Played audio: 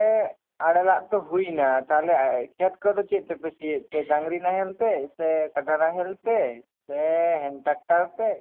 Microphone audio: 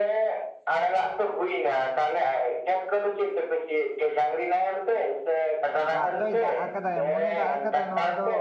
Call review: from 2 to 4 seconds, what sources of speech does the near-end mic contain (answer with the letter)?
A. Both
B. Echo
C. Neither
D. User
B